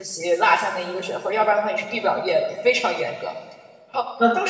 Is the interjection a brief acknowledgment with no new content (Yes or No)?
No